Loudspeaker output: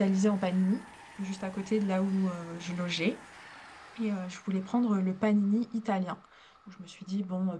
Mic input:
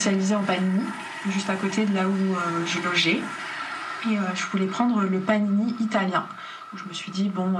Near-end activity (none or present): none